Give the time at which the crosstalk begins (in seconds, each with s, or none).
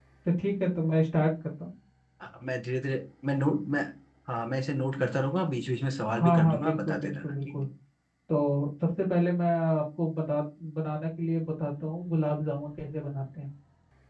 6.1 s